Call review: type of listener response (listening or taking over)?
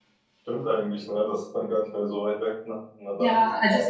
taking over